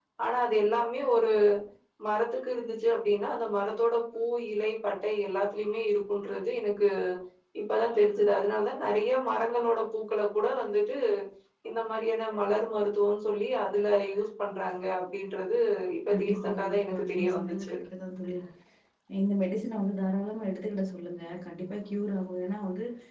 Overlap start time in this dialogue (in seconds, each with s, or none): 16.1 s